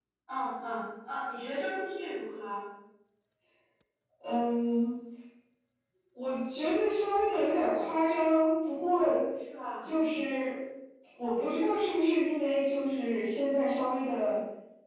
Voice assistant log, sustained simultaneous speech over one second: none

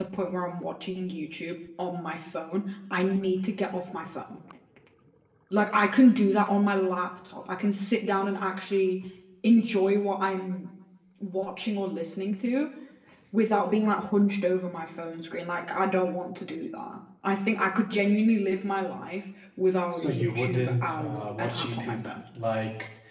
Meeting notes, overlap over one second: present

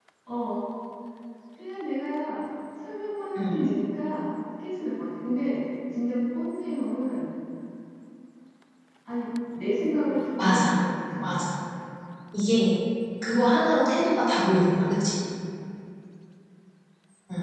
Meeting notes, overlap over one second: none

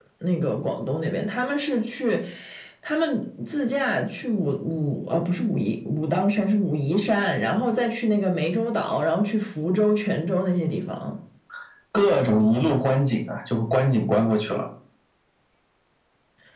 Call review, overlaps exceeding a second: none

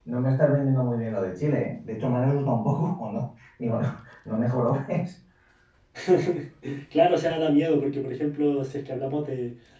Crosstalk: none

